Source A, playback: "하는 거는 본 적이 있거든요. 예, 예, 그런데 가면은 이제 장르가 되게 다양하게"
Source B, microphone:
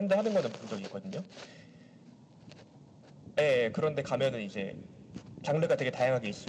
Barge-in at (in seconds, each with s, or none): none